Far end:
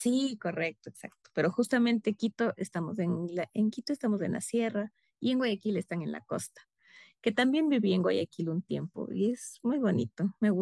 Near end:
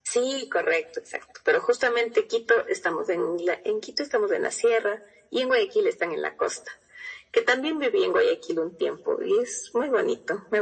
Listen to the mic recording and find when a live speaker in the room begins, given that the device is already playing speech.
none

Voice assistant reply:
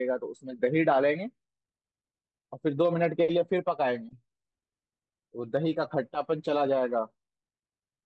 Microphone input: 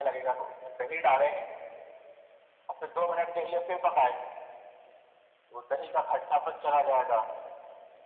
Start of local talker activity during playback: none

